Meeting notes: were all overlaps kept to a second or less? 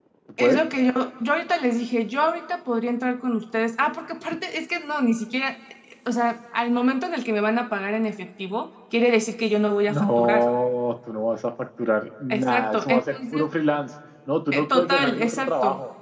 No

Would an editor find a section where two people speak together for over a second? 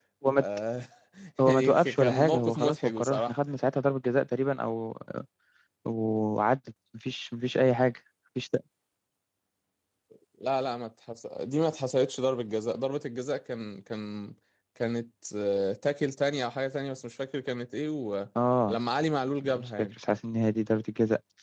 Yes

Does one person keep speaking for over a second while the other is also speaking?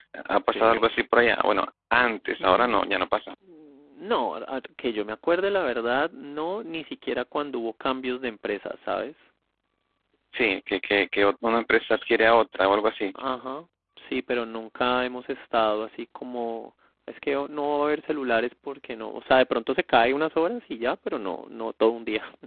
No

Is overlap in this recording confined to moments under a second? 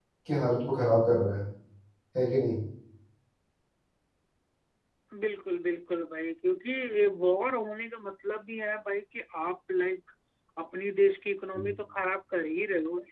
Yes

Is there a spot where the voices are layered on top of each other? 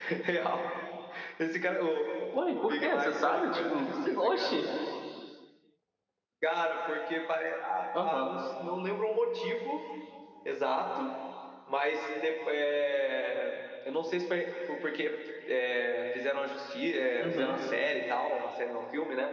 Yes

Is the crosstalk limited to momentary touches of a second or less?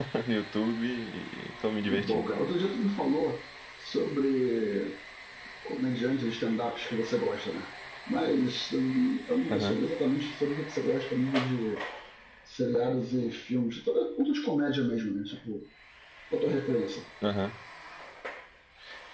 Yes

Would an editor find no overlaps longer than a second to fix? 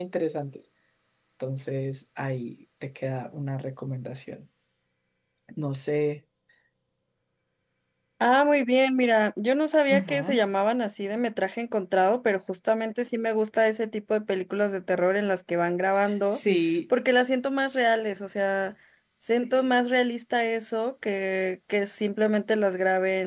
Yes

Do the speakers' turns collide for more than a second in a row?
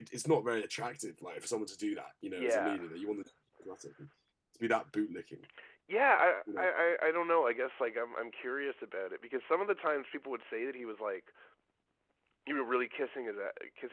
No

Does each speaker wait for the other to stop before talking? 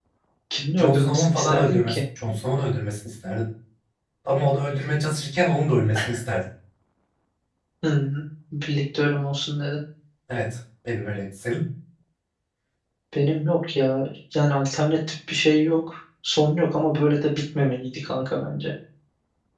No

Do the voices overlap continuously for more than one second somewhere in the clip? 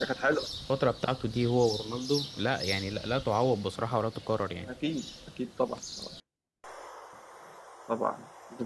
No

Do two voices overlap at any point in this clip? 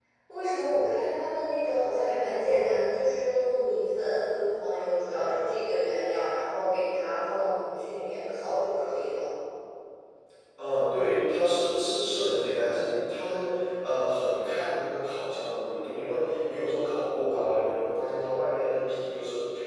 No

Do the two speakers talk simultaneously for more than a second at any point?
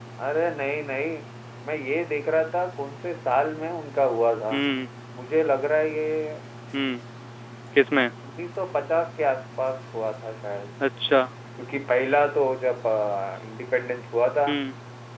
No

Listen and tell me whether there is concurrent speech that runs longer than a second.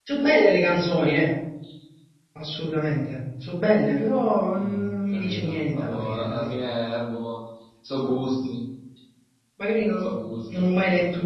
Yes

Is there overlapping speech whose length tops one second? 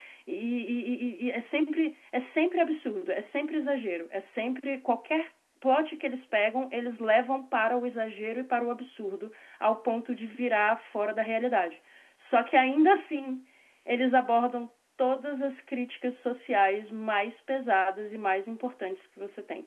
No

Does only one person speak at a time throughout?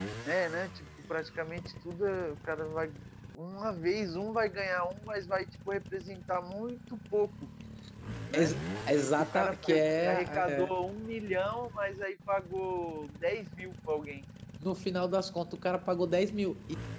No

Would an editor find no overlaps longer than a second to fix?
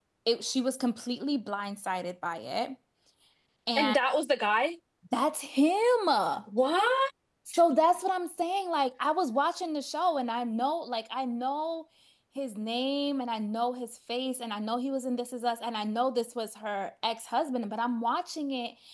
Yes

